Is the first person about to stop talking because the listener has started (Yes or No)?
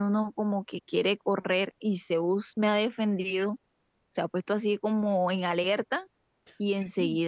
No